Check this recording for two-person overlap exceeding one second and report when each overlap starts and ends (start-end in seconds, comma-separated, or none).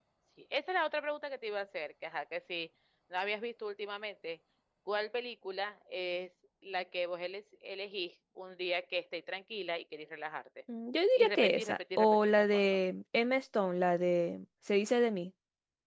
11.2-12.6